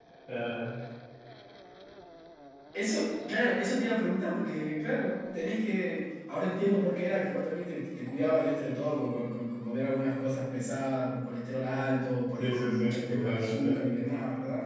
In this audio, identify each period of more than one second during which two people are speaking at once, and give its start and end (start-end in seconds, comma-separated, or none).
12.4-13.8